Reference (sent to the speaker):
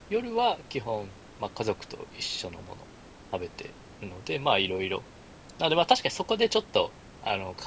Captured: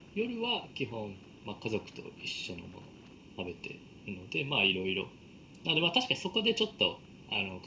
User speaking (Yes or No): No